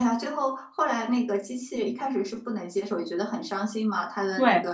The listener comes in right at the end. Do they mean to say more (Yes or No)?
No